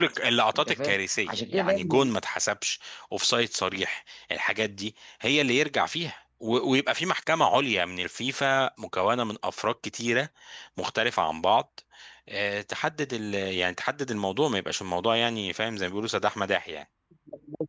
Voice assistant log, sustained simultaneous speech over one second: present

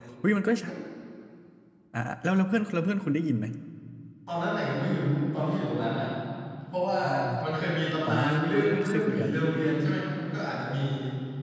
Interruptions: present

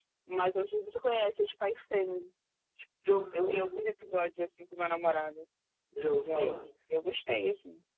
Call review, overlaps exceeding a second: none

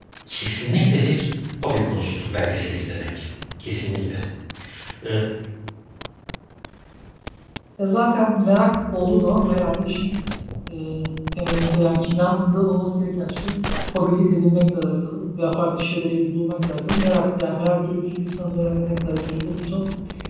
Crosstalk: none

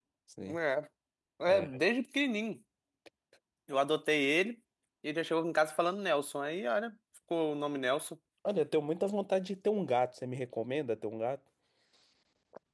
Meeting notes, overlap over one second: none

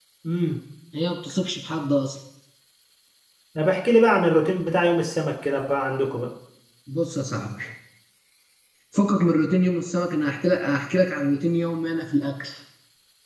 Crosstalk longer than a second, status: none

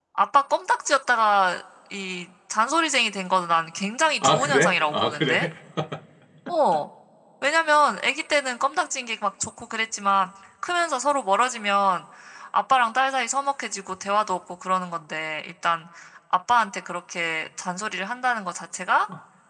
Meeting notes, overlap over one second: present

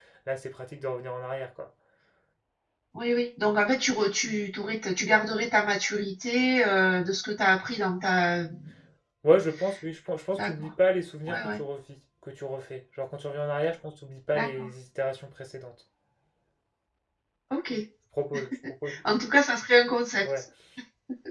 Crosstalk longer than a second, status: none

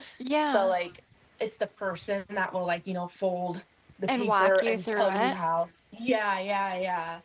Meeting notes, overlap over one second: present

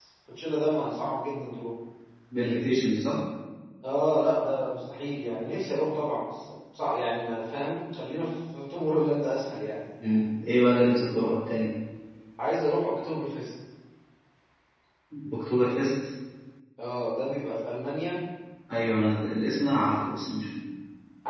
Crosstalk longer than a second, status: none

